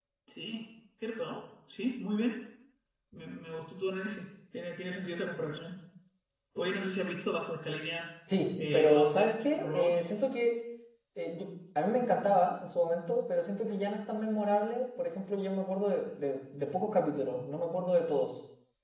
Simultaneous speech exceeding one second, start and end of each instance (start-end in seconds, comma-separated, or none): 8.7-10.1